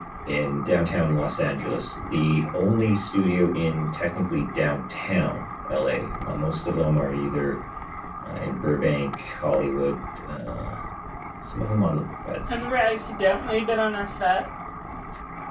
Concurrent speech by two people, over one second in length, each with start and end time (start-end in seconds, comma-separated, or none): none